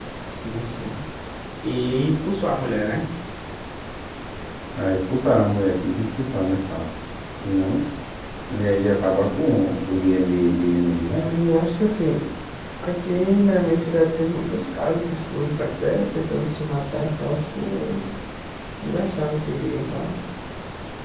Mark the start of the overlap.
none

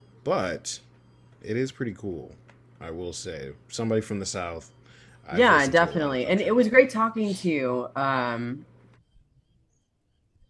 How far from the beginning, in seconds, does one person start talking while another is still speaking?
5.3 s

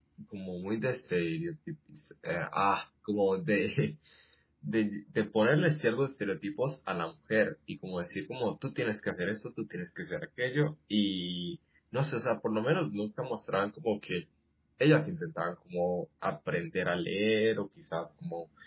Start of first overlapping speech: none

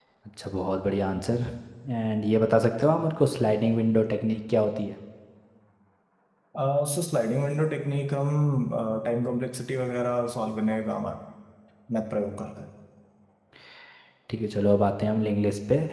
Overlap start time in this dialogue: none

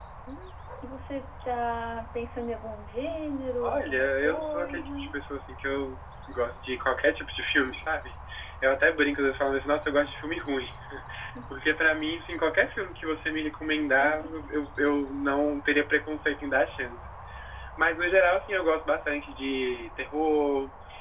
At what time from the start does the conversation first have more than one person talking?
3.6 s

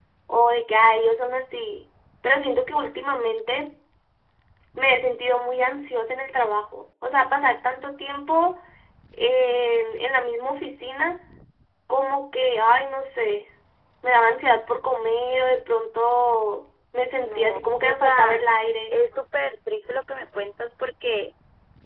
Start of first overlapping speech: 17.2 s

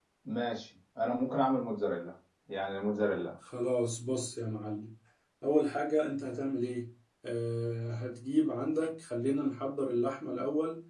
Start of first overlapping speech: none

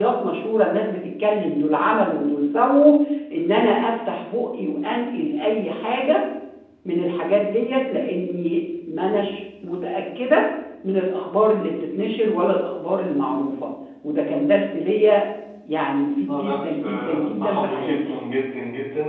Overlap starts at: 16.3 s

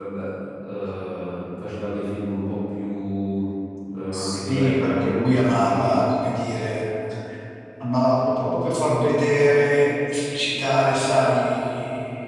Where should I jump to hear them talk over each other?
4.1 s

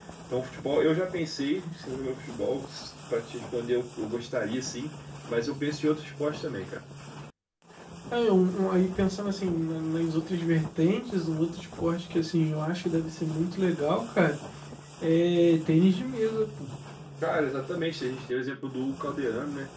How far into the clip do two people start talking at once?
none

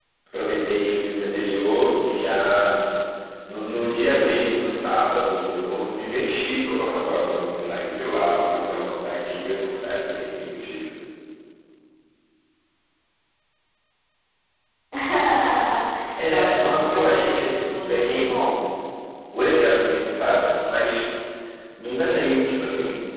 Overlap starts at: 16.3 s

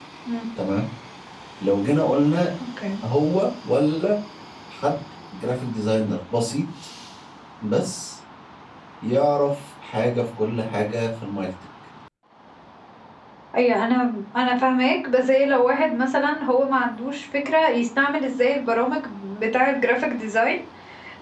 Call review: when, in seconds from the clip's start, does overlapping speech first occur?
none

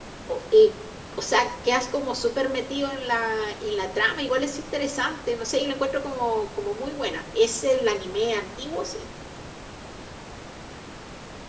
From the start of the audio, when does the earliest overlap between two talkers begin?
none

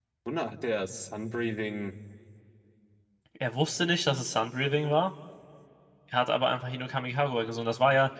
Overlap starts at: none

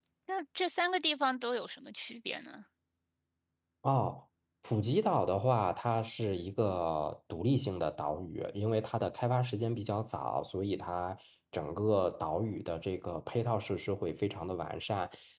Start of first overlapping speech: none

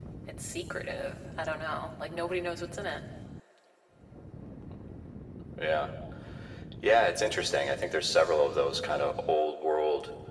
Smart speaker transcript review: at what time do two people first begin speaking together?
none

